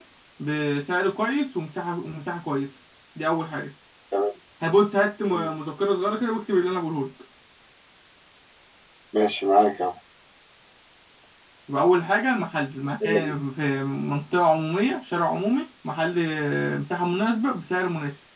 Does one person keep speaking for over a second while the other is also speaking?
No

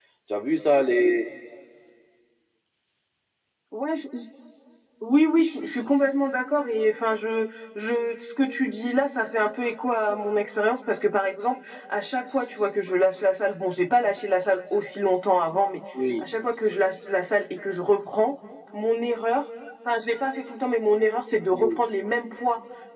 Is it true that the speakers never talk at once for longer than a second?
Yes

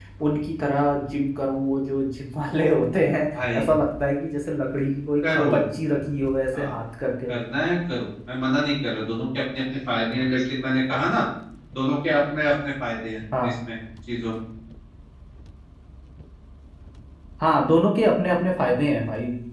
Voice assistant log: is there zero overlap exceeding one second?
Yes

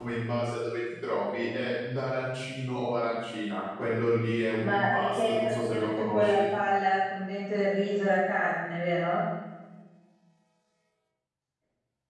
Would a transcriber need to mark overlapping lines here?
Yes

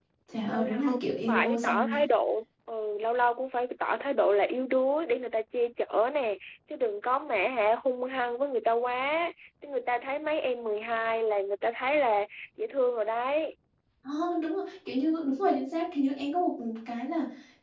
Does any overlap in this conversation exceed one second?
Yes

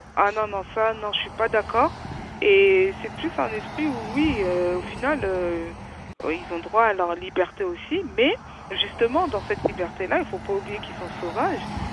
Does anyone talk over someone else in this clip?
No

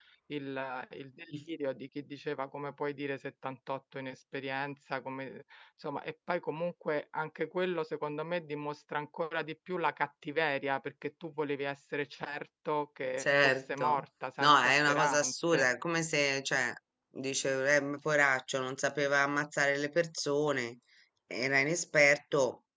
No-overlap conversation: No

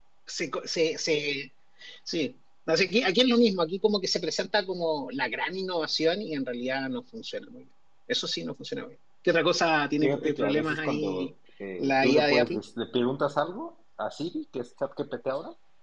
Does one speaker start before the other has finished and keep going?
Yes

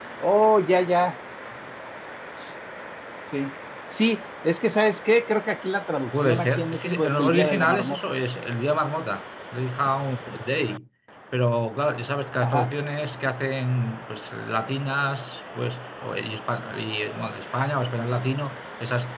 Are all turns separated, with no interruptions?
No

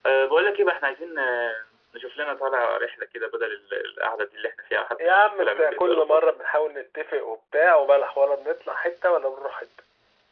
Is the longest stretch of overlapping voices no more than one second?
No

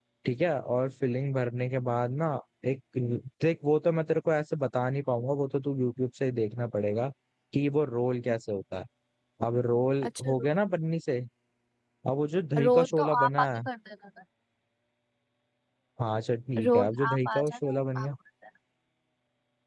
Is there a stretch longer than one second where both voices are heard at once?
Yes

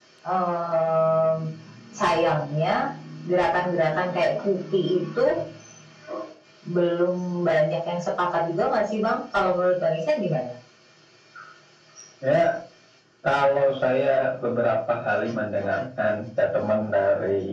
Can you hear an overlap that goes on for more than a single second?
No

